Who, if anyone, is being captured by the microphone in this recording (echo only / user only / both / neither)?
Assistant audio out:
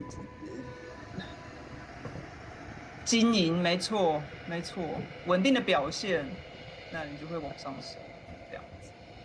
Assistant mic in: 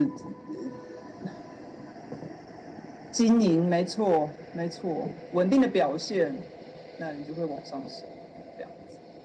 echo only